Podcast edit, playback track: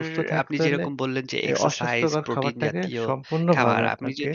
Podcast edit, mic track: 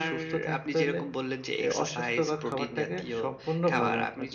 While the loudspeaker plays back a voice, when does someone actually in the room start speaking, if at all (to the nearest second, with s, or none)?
none